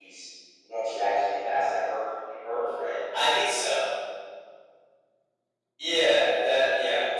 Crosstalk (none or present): none